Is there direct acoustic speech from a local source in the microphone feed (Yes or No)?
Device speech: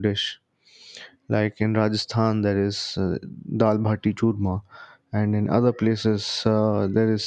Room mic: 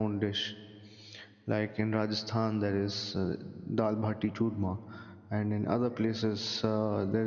No